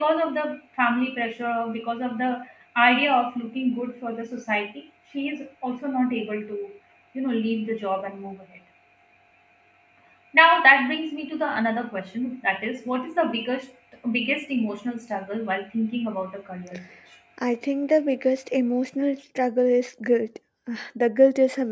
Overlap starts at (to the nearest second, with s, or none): none